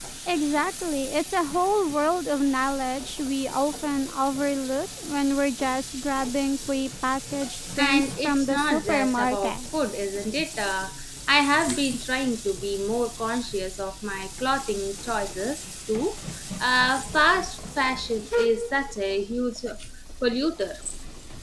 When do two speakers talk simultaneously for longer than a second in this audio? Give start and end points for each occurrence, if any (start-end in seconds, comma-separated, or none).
7.8-9.5